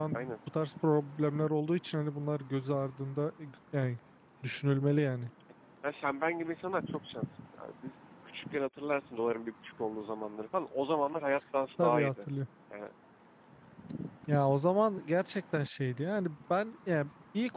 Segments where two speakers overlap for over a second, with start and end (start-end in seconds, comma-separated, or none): none